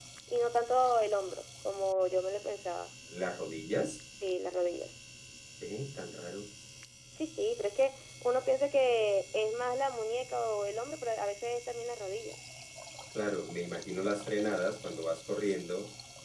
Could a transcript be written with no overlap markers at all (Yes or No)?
Yes